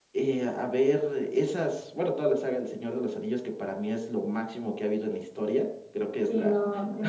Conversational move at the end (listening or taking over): taking over